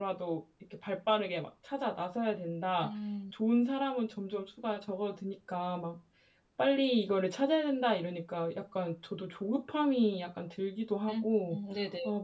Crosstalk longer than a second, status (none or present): none